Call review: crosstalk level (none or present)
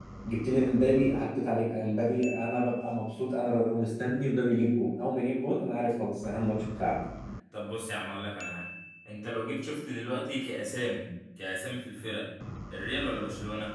none